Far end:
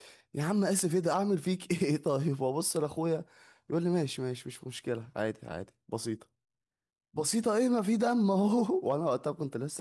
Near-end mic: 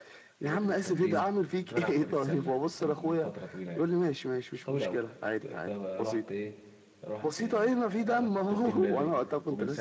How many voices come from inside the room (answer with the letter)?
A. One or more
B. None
A